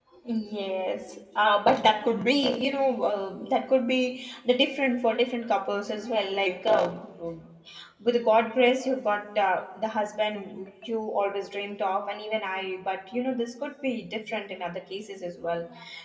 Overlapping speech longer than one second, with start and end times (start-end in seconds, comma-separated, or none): none